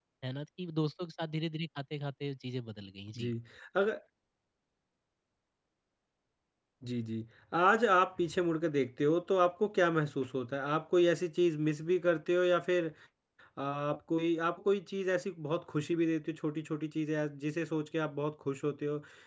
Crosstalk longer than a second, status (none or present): none